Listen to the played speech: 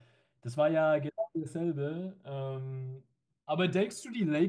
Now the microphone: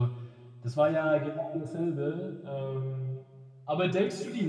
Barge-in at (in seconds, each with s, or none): none